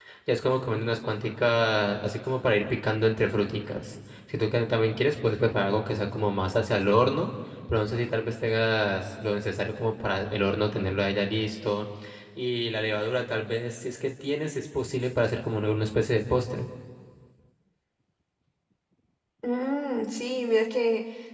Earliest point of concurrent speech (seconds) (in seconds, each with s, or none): none